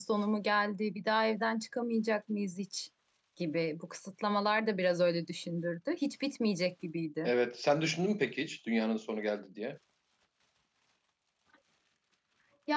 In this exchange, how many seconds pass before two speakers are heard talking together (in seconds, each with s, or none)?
none